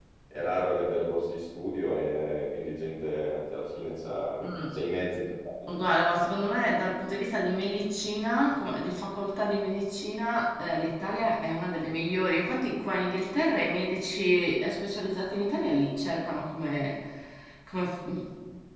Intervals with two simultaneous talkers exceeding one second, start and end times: none

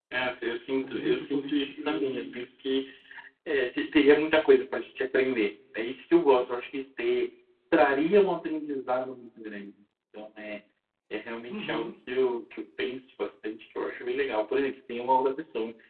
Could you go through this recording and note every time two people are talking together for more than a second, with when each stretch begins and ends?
0.8-2.3

